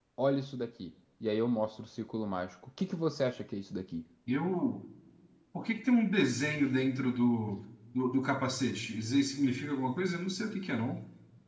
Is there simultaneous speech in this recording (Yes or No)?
No